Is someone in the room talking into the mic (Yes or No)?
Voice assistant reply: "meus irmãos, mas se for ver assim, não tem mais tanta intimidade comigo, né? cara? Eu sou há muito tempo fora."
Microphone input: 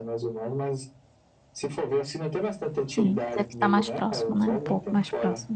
Yes